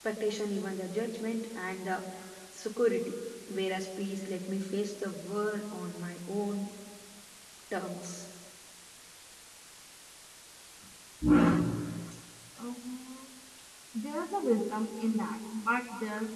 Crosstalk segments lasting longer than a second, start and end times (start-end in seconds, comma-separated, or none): none